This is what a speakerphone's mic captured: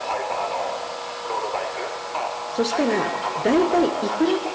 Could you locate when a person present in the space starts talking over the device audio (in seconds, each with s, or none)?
2.5 s